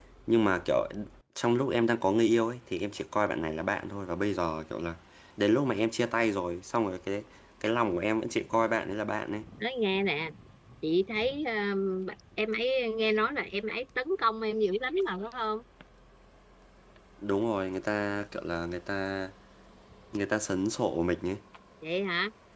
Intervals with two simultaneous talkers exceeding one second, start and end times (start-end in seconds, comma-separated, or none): none